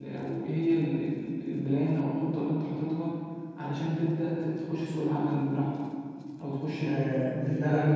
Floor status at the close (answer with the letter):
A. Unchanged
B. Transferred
B